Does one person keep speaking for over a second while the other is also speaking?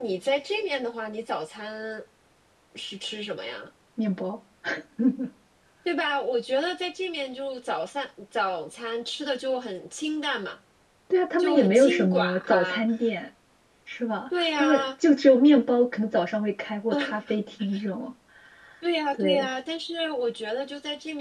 Yes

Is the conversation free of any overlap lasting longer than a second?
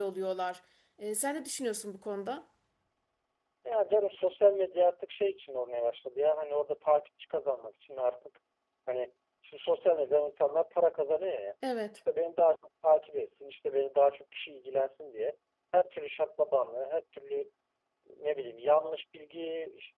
Yes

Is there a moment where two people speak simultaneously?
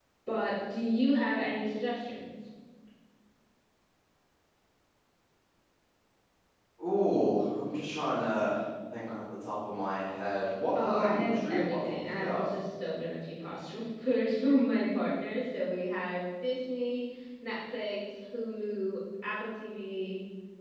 Yes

